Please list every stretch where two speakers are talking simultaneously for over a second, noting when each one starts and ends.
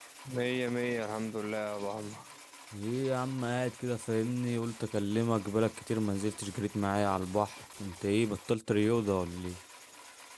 none

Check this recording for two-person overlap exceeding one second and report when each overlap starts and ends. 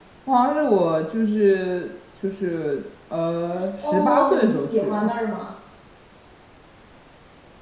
3.8-5.1

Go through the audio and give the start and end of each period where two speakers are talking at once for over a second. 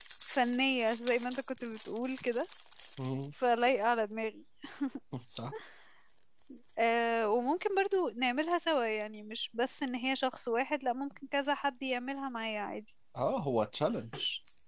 none

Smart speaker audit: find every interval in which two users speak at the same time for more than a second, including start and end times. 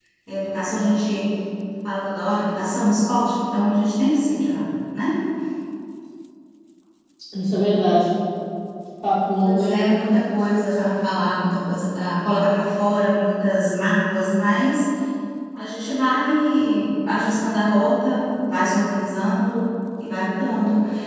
none

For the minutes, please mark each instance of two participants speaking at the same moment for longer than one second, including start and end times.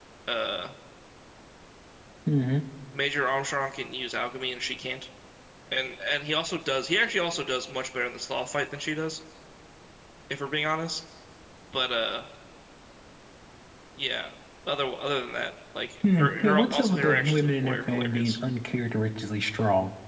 16.2-18.4

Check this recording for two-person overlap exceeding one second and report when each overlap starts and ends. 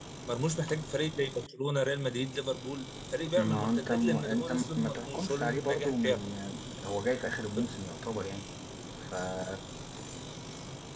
3.4-6.2

